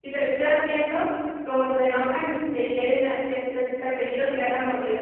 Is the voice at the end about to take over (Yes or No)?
Yes